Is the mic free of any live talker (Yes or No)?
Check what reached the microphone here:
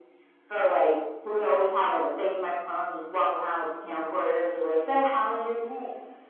Yes